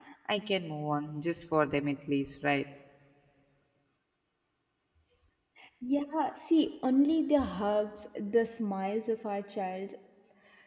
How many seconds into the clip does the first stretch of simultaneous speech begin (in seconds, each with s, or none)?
none